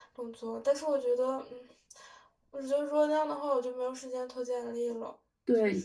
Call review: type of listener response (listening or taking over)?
taking over